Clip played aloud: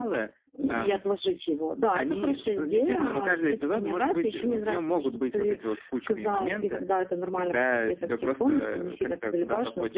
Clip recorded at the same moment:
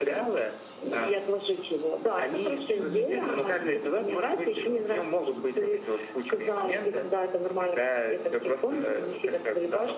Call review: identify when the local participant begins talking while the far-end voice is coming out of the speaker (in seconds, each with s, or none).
2.8 s